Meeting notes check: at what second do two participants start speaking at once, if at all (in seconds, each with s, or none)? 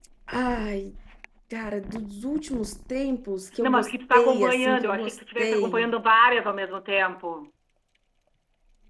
3.6 s